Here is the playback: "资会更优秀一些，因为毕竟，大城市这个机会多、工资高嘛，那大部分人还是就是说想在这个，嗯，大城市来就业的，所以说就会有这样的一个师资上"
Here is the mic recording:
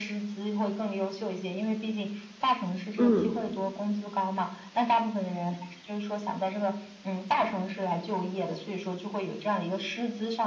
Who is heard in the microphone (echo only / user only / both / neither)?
both